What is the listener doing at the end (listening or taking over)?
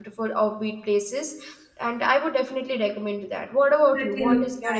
taking over